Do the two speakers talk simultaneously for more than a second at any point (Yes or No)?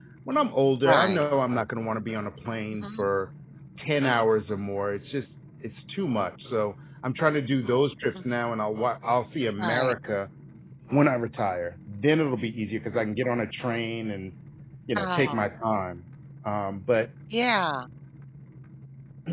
No